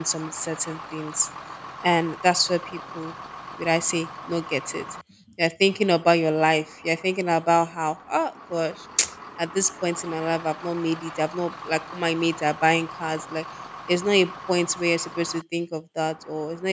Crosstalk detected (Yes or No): No